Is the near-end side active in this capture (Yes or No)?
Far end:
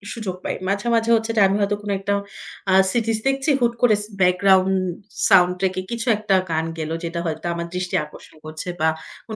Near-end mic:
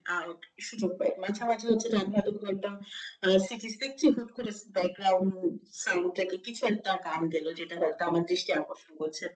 No